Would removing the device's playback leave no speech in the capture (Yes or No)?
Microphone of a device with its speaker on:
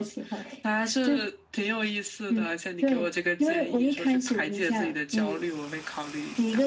Yes